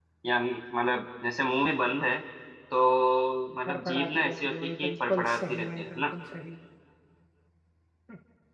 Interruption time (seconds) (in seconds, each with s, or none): 3.7 s